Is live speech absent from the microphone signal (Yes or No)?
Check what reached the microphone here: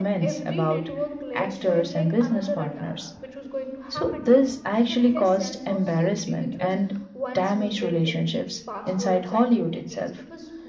No